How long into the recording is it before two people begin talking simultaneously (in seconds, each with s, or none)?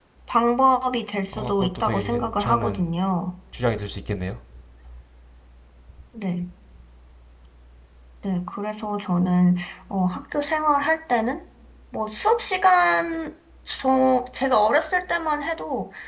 1.3 s